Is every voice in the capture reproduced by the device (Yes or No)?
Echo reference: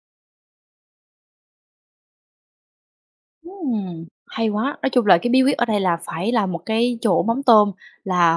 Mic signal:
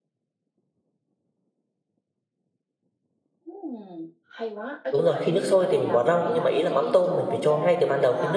No